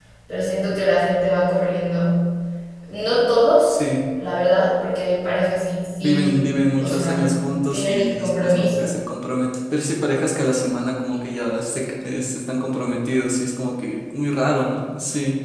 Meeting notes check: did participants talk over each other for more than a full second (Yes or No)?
Yes